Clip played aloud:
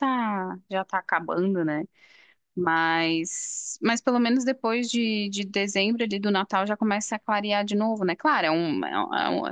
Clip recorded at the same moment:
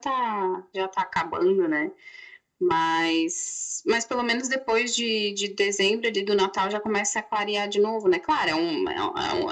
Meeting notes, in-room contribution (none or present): none